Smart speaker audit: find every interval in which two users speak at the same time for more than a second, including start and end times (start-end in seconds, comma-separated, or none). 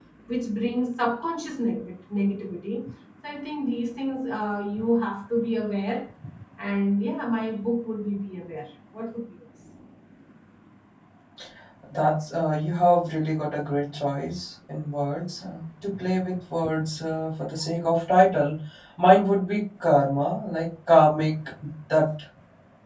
none